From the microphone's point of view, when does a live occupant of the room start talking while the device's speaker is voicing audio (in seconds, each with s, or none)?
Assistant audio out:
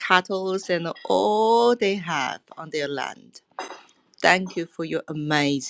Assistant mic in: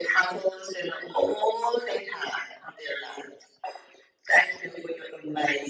none